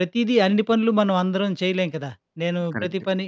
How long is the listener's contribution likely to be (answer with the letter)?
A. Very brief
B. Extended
A